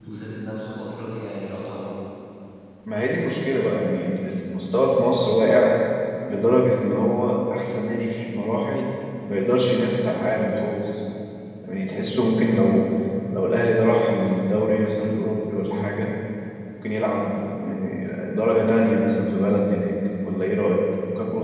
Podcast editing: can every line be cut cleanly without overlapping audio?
Yes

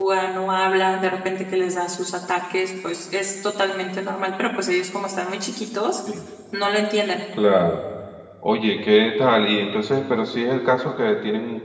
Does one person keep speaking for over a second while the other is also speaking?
No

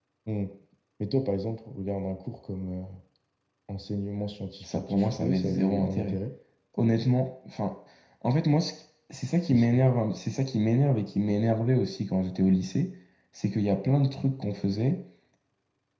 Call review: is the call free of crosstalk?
No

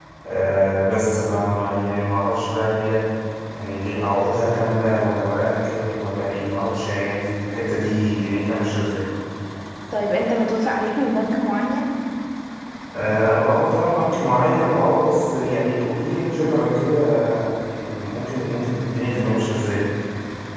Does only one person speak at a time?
Yes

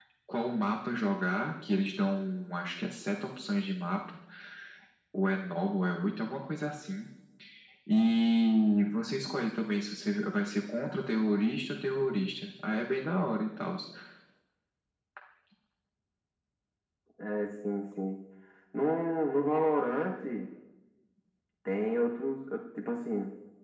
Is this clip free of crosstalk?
Yes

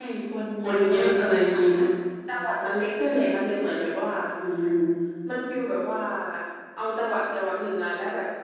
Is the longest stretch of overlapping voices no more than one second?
No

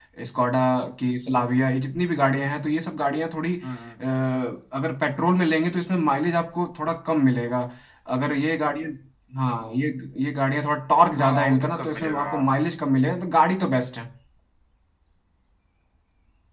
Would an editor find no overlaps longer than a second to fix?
No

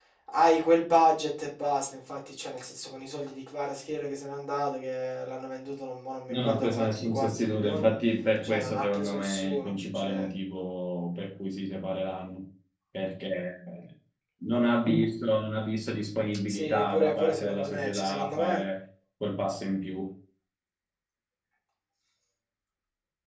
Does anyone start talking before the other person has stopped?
Yes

